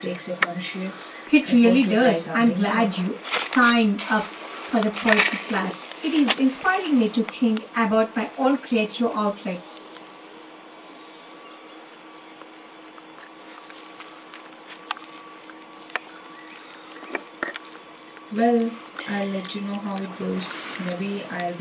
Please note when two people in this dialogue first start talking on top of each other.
1 s

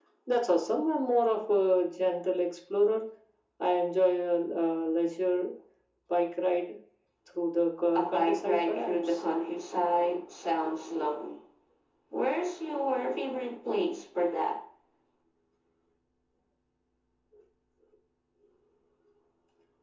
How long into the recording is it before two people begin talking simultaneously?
8 s

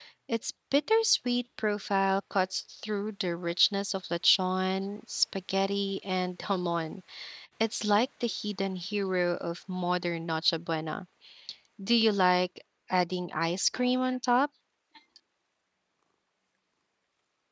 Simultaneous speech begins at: none

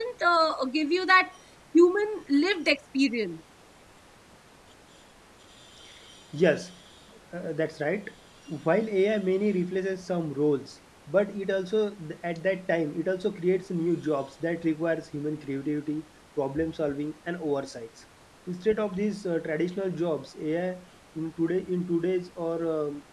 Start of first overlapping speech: none

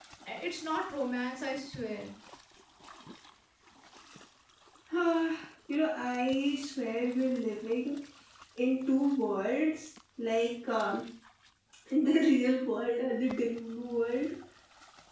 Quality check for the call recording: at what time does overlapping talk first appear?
none

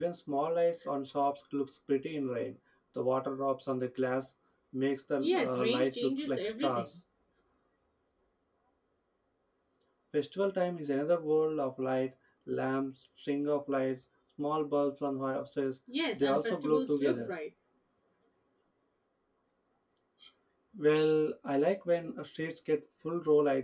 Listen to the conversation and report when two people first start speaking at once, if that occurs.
5 s

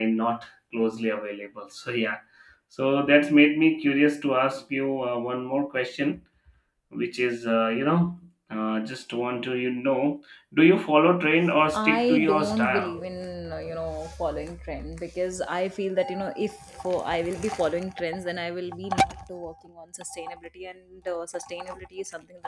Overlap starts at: 12 s

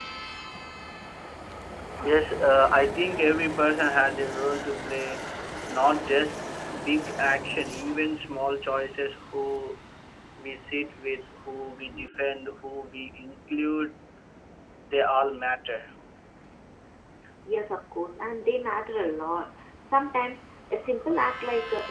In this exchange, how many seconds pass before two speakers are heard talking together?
none

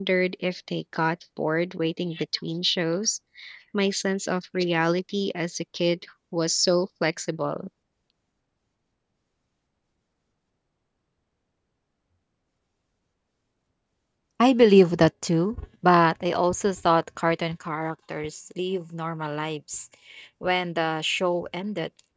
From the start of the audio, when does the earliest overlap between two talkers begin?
none

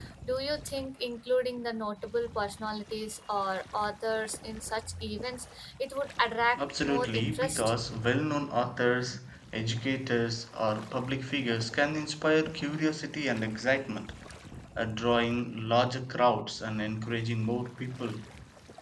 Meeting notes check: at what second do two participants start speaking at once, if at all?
7 s

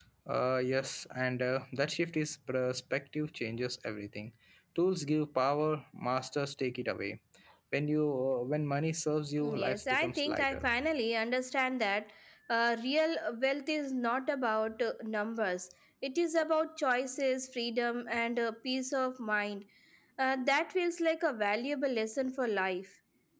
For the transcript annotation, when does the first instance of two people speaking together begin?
9 s

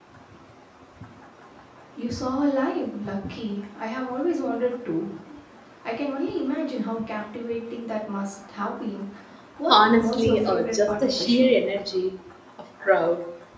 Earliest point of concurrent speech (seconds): 10 s

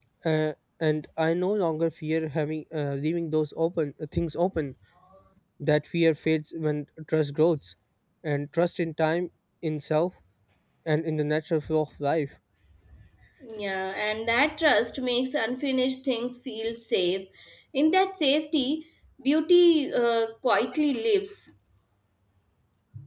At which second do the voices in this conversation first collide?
none

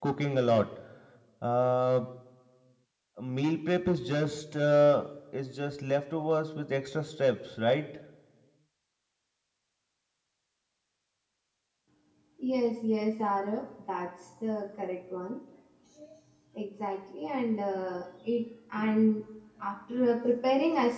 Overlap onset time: none

